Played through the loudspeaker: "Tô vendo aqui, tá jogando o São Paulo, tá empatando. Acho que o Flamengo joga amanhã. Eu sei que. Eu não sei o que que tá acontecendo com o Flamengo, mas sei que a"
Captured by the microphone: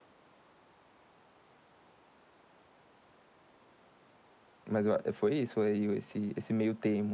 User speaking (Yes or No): Yes